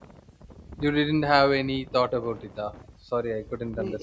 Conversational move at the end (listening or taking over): taking over